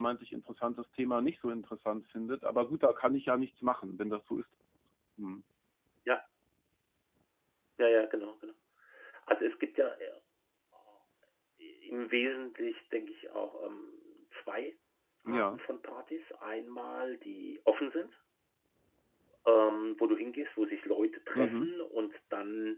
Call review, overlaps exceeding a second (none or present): none